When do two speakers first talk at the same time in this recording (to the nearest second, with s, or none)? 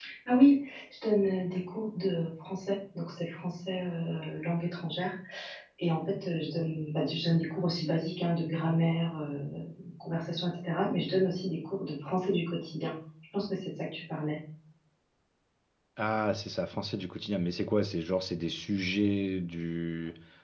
none